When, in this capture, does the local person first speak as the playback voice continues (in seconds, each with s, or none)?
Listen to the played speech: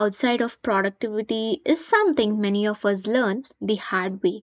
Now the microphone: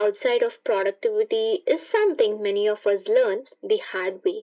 none